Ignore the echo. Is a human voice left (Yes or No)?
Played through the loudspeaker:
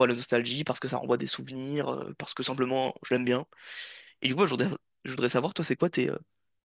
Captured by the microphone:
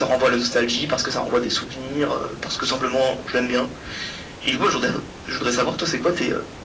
No